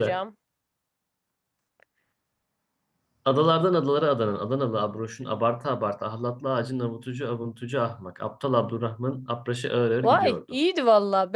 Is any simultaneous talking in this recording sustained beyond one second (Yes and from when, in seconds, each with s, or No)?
No